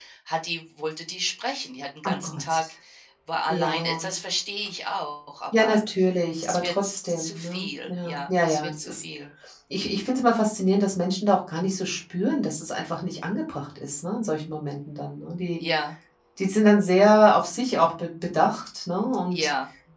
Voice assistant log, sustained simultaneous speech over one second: present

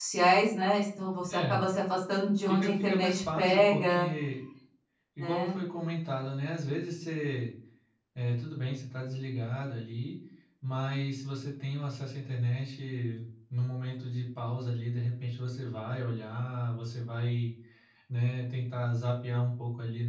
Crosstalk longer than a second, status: present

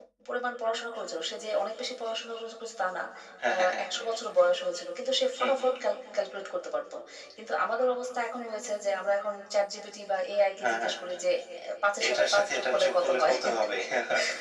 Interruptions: present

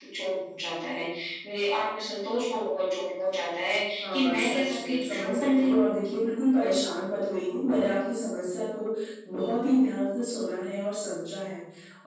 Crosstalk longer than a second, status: present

